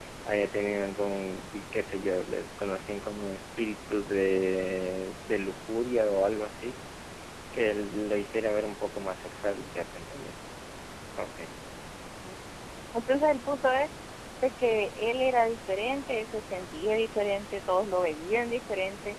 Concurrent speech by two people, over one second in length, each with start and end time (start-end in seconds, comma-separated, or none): none